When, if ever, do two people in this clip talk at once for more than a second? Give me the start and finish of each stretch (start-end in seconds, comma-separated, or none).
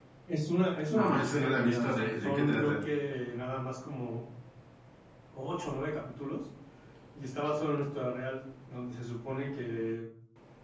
0.9-2.8